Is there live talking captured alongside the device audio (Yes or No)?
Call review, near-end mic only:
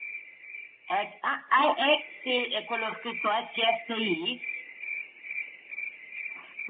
No